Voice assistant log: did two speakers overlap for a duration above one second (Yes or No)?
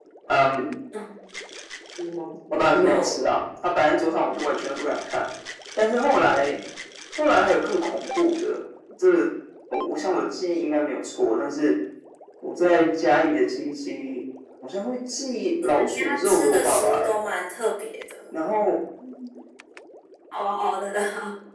Yes